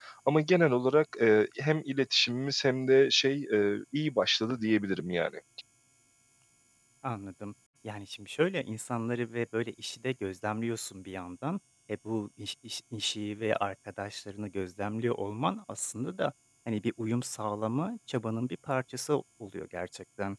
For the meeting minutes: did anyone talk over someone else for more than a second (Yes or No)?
No